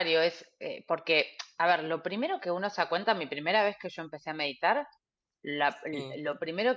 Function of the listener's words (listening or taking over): listening